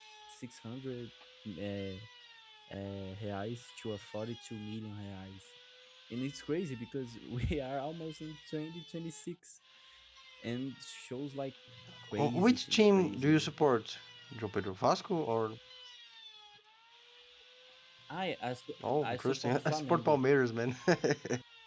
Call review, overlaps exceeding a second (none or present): present